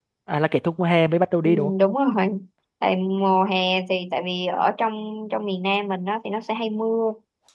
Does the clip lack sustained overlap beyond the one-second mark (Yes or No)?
Yes